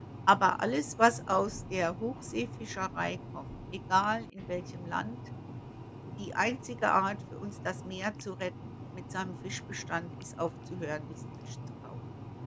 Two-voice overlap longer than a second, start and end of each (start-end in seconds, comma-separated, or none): none